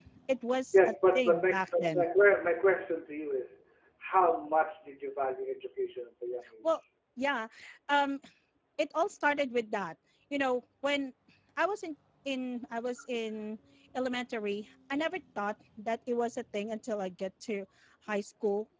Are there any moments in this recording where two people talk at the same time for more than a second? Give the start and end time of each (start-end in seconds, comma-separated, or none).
0.7-2.0